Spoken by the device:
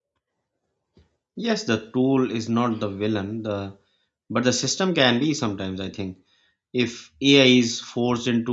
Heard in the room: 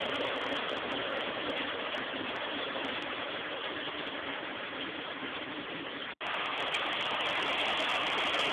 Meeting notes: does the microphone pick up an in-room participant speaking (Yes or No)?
No